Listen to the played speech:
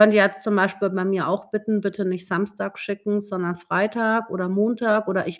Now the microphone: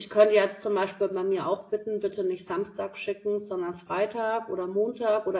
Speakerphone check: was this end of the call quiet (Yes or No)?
Yes